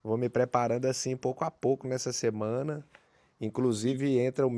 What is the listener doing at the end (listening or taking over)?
listening